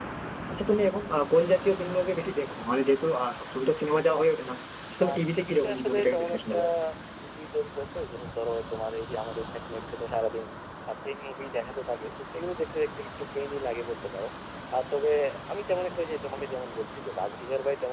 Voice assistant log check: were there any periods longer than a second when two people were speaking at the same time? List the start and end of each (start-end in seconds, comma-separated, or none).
5.0-6.6